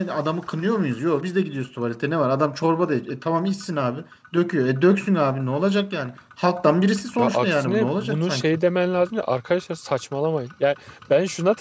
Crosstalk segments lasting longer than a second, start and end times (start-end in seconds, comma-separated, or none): 7.2-8.4